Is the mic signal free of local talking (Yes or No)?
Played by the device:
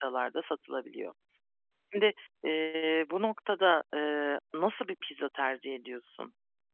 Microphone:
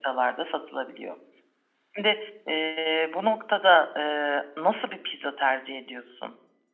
Yes